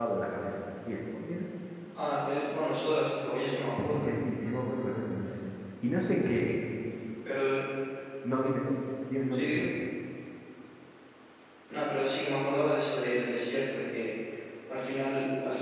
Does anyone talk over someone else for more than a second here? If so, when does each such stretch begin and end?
none

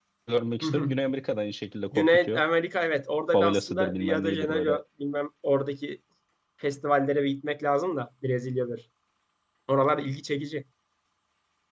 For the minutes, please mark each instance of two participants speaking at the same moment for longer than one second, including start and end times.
3.3-4.8

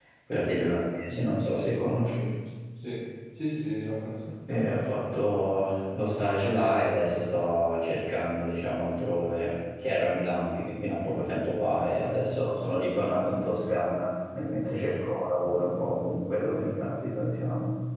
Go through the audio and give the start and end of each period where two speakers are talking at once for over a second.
none

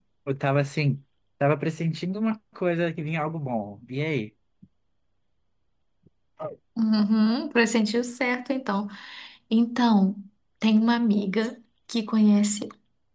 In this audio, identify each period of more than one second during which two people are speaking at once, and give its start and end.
none

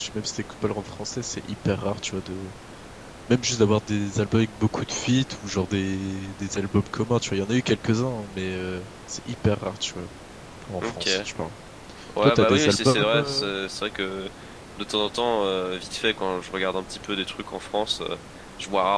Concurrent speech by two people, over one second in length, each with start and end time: 12.2-13.5

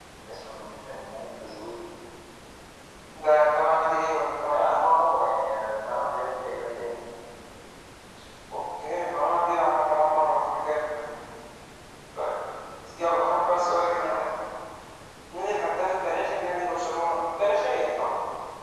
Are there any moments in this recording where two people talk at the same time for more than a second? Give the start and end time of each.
12.9-14.2

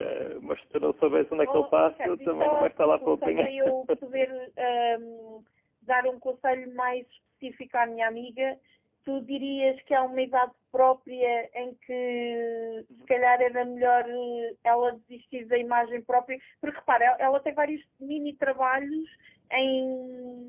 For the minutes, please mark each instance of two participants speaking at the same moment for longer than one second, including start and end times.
1.4-3.5

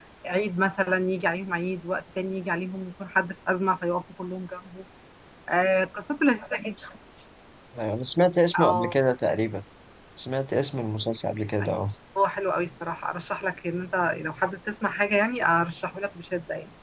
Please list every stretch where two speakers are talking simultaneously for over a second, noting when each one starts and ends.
none

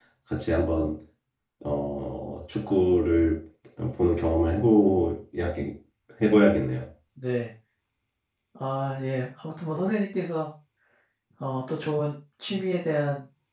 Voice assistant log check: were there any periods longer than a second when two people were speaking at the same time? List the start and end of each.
none

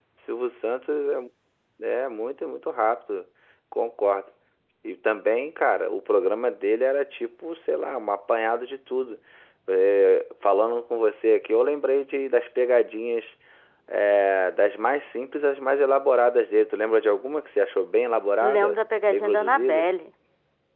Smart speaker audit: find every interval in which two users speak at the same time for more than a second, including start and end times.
18.4-19.9

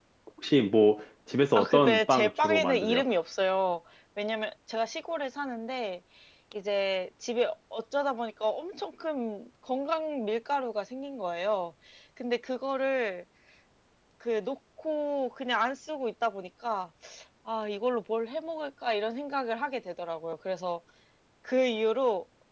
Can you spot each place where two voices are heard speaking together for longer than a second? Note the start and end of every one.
1.6-3.0

